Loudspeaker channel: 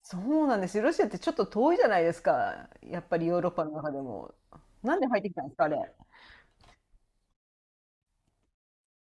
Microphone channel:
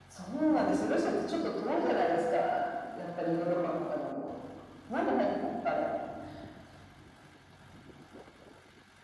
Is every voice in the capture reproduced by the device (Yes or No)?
Yes